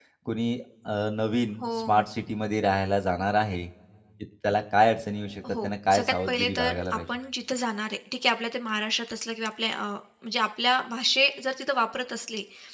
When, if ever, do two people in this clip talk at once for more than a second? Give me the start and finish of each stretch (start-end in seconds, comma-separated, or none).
5.6-7.0